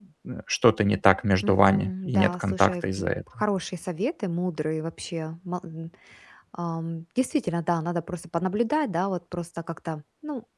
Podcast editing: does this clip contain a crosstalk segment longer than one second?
Yes, from 1.4 s

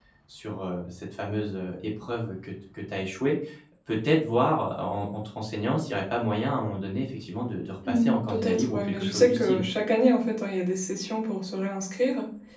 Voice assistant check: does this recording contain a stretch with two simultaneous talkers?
Yes, from 7.8 s

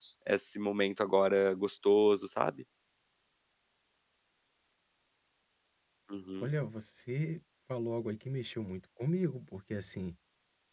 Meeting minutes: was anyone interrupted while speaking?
No

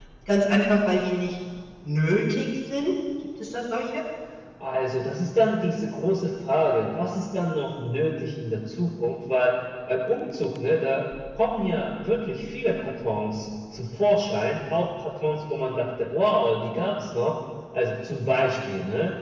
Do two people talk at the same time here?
No

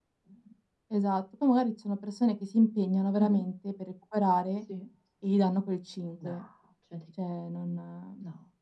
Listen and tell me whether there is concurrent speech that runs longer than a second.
No

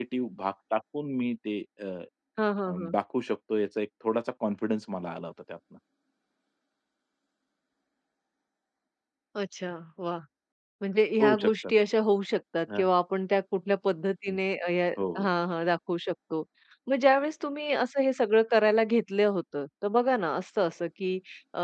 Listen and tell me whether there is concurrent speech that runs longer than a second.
No

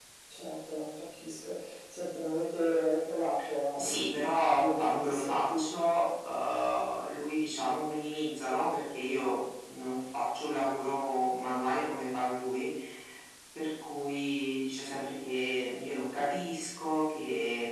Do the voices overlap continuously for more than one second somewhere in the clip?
Yes, from 3.8 s

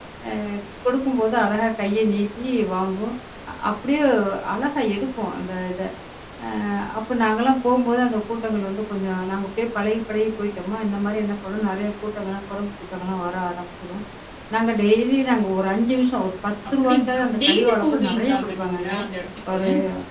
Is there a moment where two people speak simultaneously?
Yes, from 16.7 s

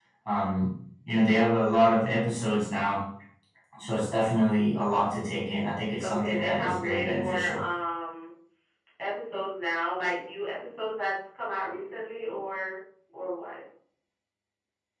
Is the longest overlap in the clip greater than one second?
Yes, from 6.0 s

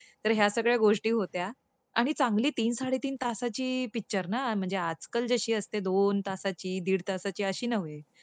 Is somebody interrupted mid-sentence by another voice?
No

